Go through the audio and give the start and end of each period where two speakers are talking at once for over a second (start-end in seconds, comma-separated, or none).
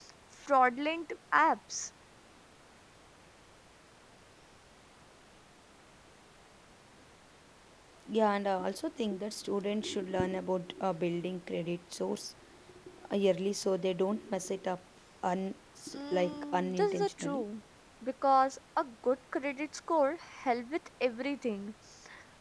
15.9-17.4